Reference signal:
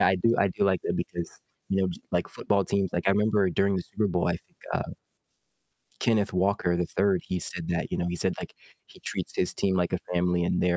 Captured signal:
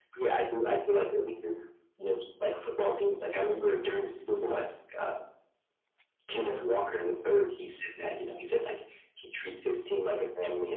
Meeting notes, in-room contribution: none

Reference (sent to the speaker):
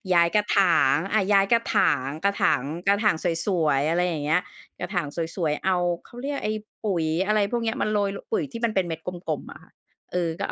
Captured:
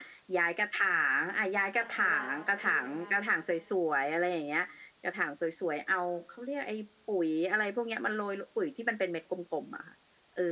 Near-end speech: present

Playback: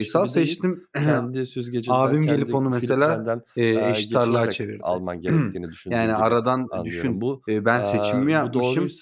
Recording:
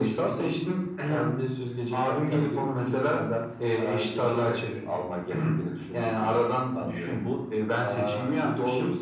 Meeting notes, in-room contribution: none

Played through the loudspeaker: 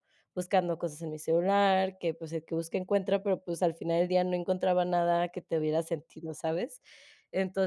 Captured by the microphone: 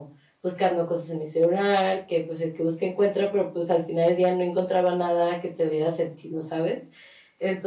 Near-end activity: none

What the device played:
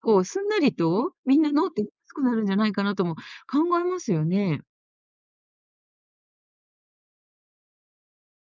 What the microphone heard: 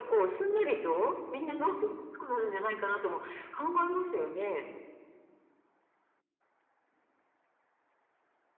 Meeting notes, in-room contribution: none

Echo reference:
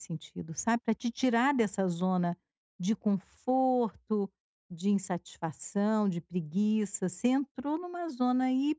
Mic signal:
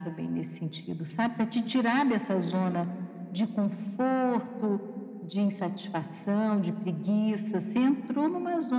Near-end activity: none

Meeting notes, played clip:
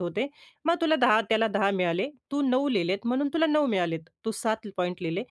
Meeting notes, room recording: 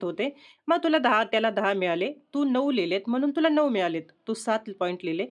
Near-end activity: none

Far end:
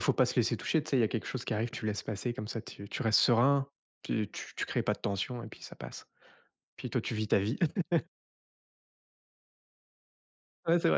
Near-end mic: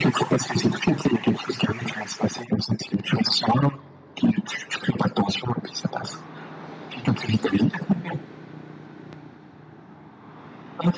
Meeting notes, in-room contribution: none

